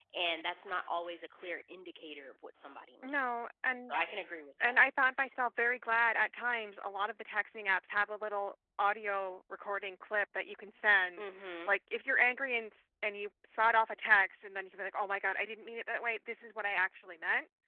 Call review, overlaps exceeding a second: none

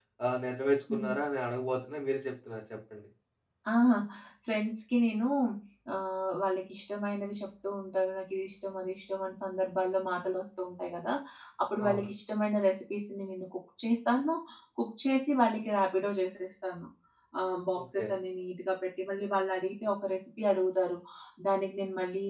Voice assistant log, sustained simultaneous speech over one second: none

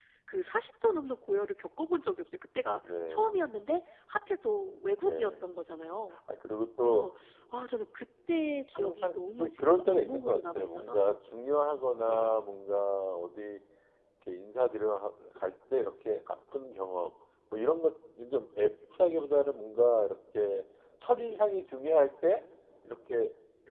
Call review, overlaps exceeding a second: present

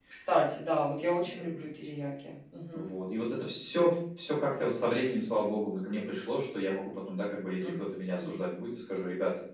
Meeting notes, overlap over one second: none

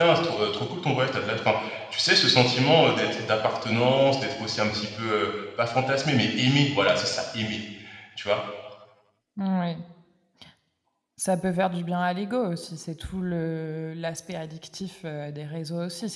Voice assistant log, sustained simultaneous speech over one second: none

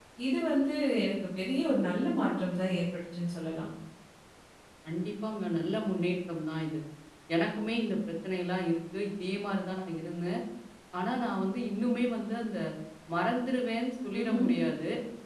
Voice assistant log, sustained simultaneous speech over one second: none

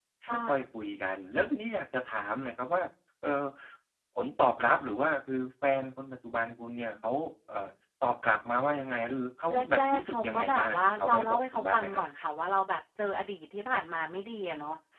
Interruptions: present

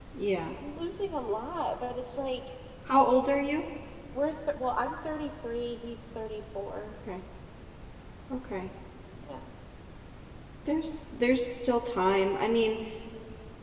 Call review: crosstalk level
none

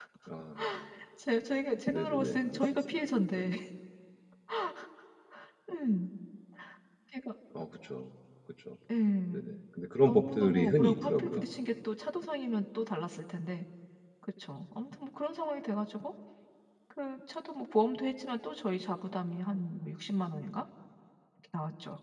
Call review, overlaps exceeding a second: present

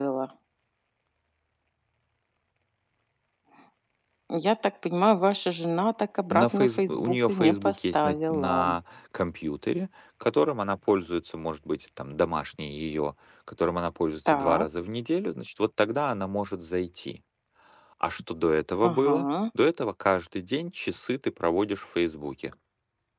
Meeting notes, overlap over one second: present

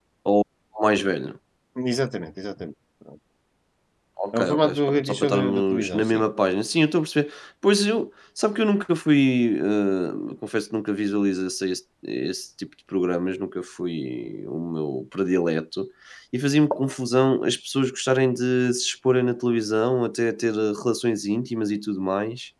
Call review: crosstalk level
present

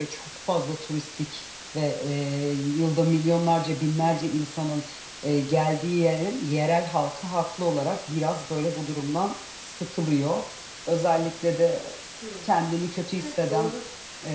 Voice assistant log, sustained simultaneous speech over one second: none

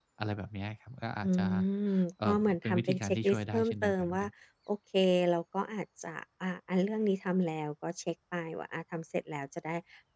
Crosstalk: present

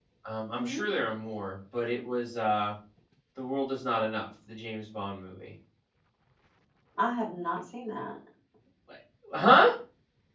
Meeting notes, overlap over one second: none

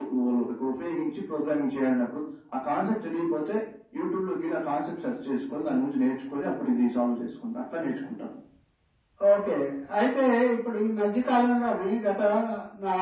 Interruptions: none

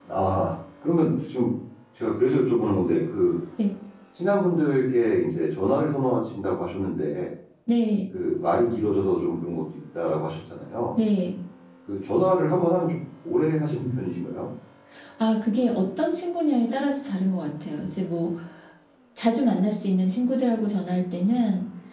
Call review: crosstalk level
none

